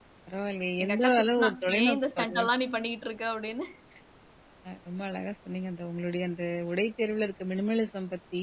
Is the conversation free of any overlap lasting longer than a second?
No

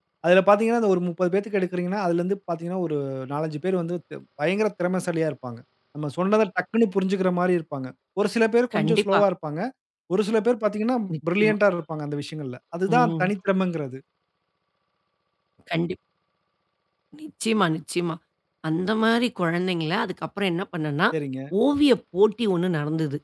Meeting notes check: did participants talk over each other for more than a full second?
No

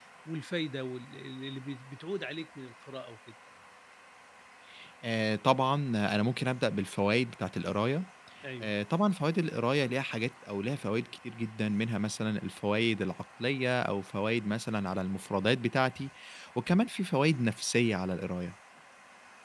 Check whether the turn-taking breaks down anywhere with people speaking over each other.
No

